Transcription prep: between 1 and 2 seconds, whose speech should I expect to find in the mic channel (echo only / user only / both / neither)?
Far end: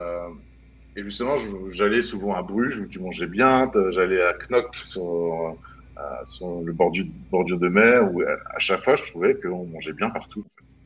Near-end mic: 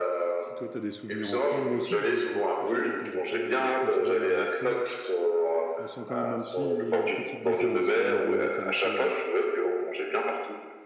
both